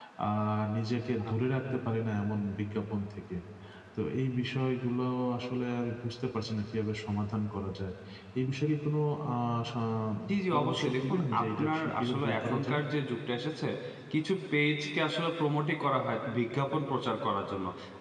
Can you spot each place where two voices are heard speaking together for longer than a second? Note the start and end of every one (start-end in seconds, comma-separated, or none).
10.5-12.8